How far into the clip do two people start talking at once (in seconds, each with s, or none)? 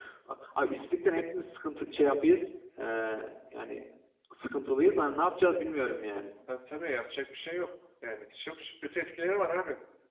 none